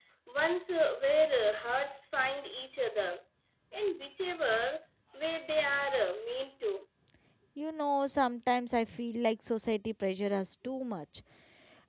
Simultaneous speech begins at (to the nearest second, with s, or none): none